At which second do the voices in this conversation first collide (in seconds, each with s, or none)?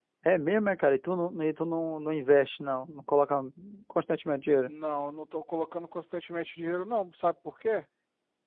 none